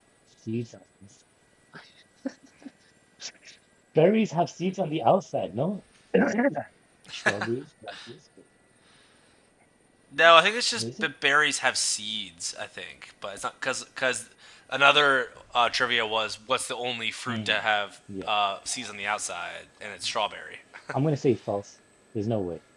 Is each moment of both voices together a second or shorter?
Yes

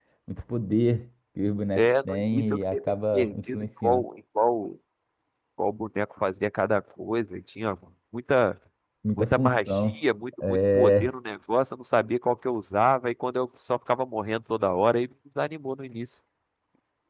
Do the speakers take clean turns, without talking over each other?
No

